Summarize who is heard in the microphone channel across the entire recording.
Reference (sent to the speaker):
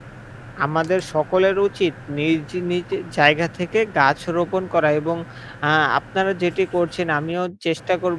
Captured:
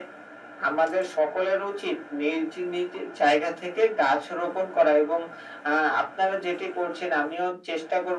echo only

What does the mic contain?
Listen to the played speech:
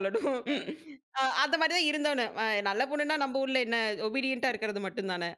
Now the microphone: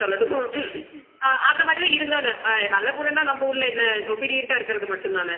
echo only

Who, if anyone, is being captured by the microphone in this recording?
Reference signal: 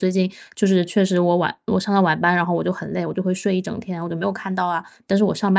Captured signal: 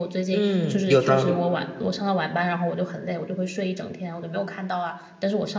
both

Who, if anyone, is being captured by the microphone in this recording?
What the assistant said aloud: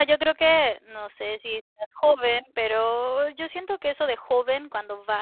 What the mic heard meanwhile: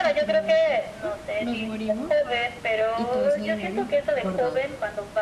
both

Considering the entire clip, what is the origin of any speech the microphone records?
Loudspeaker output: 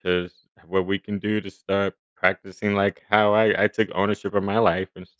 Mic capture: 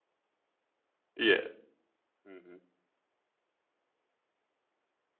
user only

